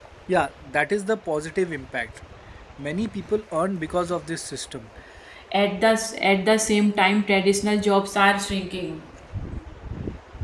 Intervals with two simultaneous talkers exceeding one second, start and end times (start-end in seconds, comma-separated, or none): none